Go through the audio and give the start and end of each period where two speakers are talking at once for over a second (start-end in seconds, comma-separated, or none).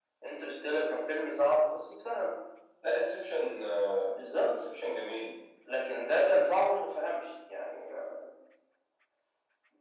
none